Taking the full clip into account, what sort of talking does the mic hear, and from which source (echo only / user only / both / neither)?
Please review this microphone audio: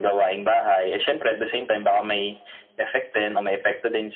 echo only